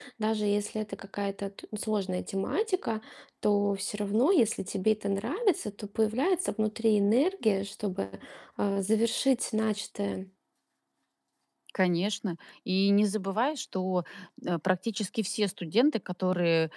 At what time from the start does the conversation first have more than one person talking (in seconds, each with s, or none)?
none